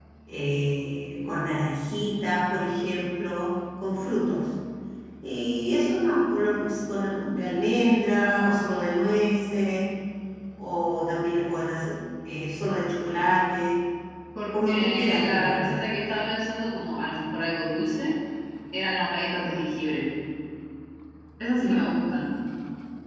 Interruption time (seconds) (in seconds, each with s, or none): 14.6 s